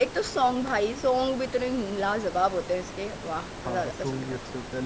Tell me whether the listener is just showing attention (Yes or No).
No